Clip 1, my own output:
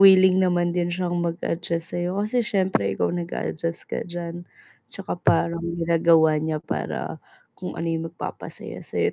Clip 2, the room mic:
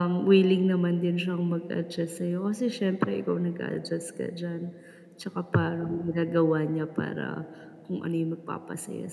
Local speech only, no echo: none

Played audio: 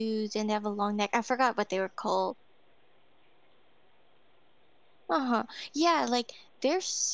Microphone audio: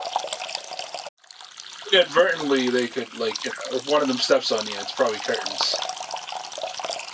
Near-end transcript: Inadvertently, they could, like, you know if one of them steps on you, it's probably curtains.

